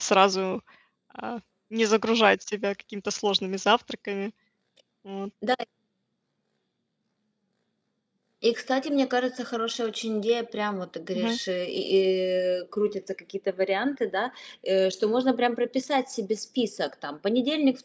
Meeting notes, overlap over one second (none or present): none